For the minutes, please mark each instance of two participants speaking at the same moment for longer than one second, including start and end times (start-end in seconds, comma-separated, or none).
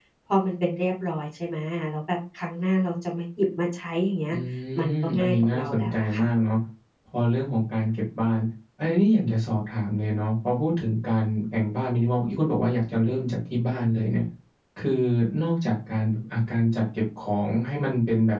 5.0-6.3